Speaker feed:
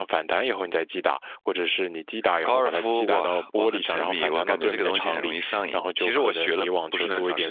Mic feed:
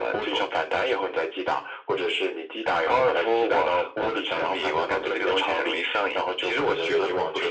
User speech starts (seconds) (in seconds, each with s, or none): none